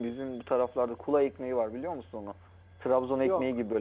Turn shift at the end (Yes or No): No